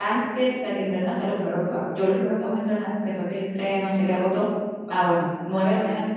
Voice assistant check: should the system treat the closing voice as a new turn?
No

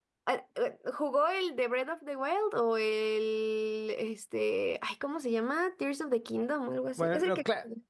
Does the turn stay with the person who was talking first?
No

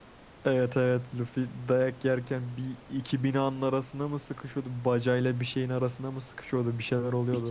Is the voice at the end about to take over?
Yes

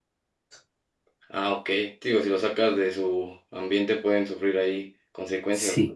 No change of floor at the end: No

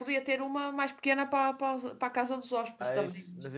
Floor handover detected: Yes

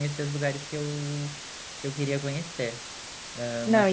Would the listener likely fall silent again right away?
No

